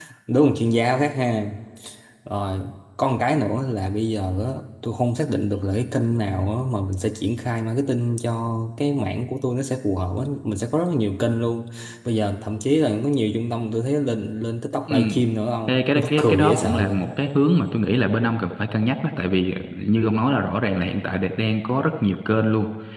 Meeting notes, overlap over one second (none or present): present